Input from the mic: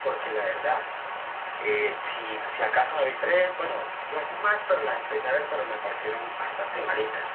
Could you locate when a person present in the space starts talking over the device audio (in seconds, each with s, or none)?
none